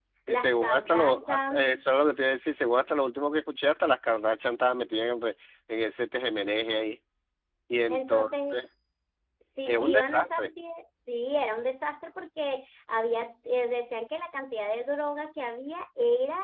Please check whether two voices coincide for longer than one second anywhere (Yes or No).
Yes